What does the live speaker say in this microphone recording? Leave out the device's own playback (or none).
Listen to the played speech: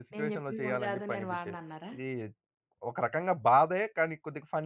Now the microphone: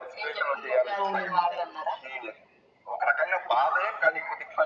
అవునండి.